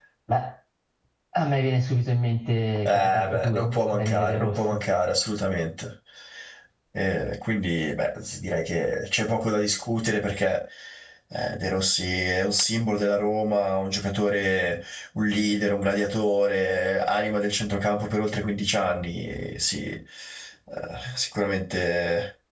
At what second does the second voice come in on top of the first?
3 s

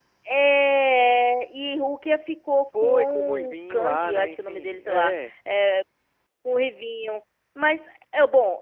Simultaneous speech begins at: 3 s

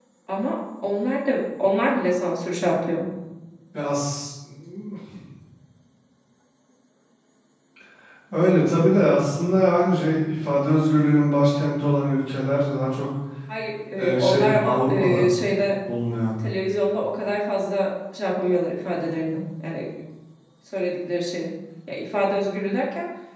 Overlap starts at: 14 s

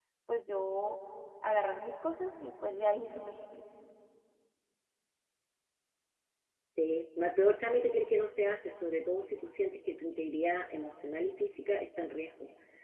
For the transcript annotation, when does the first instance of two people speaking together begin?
none

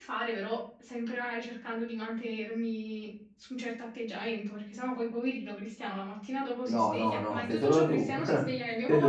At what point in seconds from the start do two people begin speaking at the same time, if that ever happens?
7 s

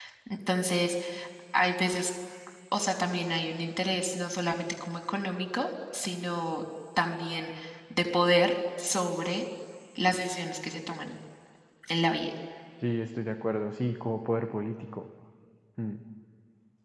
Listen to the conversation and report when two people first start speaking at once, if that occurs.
none

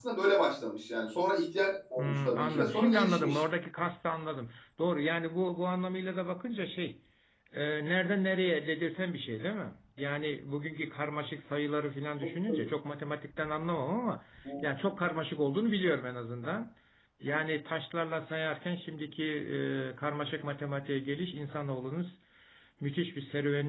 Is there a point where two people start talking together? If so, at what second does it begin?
2 s

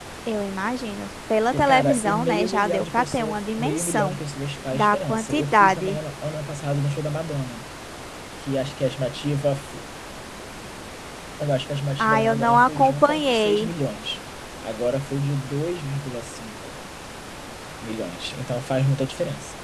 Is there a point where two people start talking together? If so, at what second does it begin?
2 s

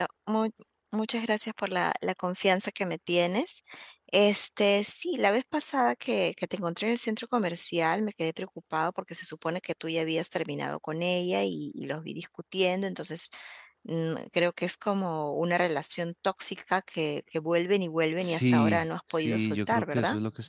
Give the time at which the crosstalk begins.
18 s

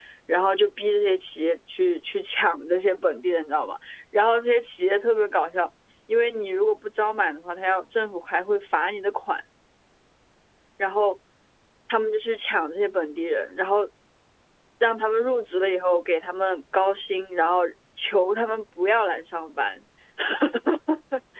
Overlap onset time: none

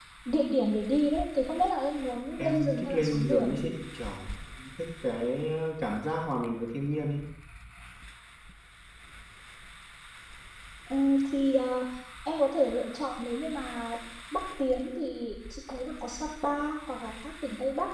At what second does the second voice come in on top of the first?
2 s

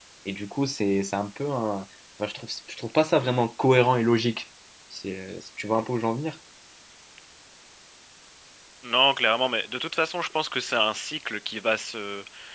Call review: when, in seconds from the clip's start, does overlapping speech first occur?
none

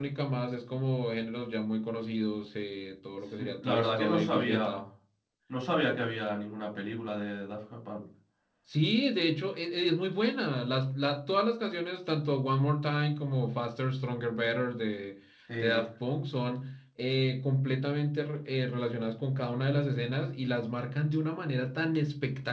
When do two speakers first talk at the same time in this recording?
3 s

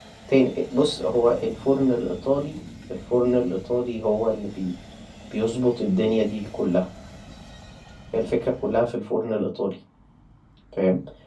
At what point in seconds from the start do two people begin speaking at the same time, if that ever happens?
none

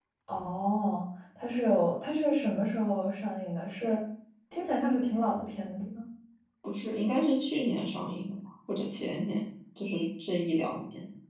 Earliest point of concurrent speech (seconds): none

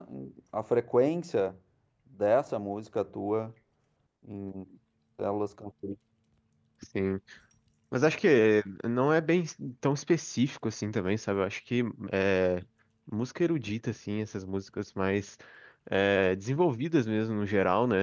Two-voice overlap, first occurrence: none

